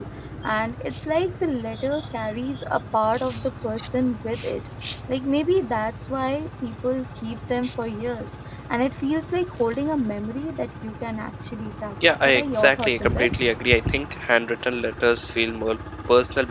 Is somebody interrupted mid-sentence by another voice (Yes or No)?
Yes